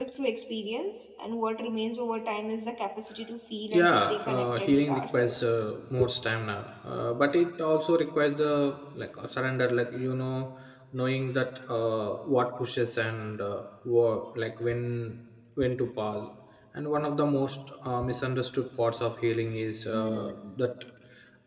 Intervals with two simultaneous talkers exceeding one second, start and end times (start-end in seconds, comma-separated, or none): 3.7-5.5